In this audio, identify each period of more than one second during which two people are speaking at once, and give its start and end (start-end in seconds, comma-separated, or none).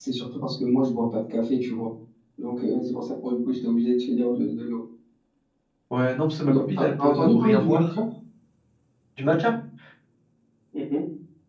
6.4-7.8